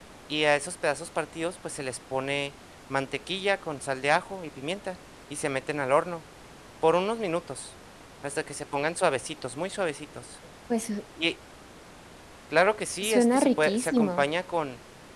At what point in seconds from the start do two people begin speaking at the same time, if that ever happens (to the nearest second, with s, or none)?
13 s